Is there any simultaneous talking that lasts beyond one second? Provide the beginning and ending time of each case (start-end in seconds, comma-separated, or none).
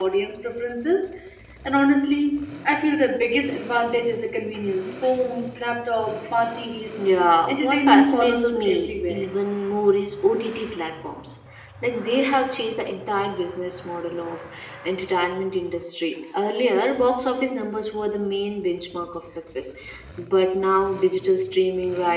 7.5-9.2